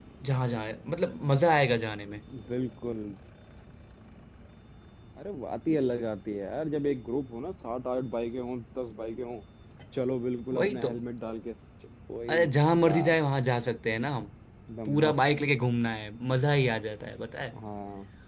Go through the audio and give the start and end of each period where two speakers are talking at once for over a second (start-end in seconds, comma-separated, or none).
none